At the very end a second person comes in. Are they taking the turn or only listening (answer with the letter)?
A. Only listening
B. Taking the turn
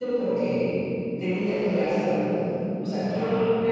A